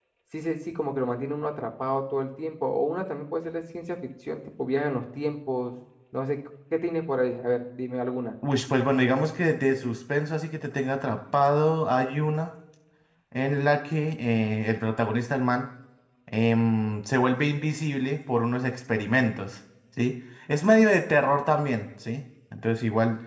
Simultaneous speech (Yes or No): No